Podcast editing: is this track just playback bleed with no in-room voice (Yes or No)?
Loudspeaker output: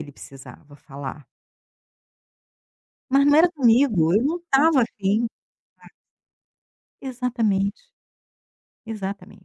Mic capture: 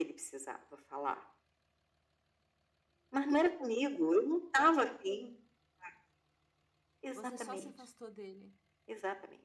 No